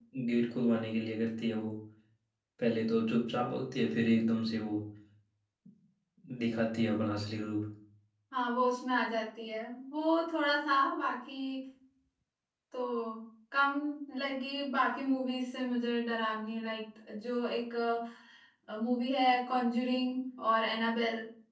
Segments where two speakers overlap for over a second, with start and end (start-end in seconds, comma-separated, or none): none